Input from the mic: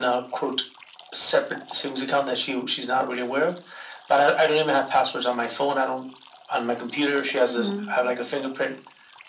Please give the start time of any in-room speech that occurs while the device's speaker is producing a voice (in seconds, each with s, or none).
7.4 s